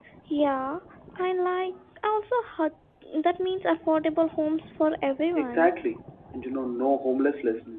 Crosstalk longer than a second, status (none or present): none